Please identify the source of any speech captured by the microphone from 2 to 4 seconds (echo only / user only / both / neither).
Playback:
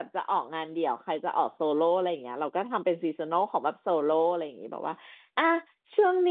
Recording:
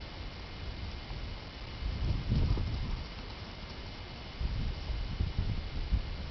neither